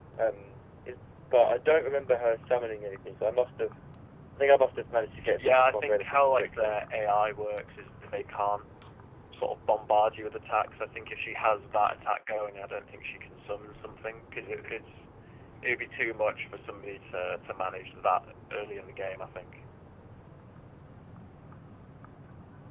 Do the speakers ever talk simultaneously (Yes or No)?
Yes